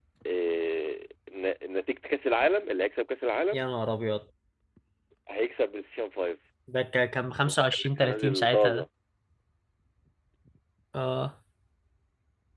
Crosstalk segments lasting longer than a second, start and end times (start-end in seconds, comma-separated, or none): 7.5-8.8